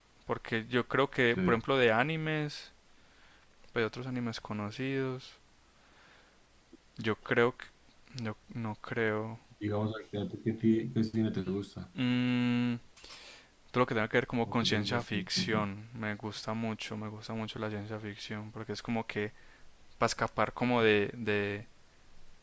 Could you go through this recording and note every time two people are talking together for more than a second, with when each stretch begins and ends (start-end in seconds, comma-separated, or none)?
14.4-15.7